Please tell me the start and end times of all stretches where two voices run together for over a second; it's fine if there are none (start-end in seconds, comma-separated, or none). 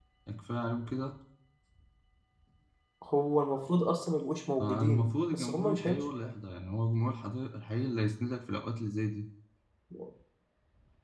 4.6-6.0